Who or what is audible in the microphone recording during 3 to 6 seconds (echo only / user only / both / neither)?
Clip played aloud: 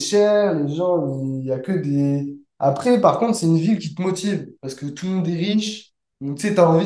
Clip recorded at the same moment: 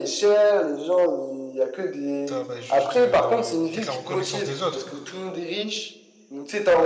both